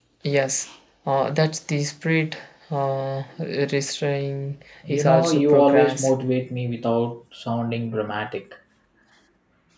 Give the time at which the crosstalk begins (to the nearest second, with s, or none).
5 s